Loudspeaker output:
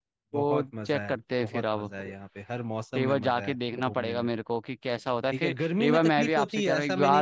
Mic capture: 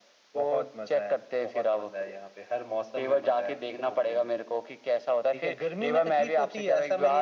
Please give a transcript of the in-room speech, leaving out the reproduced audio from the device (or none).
none